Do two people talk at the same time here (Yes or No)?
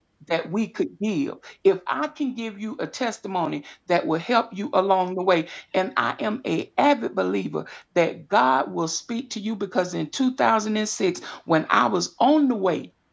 No